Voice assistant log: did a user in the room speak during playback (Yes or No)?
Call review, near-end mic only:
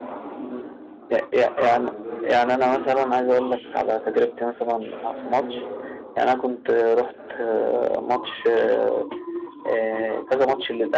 Yes